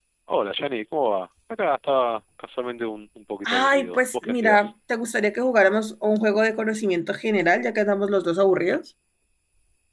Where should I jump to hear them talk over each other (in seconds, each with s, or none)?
3.4 s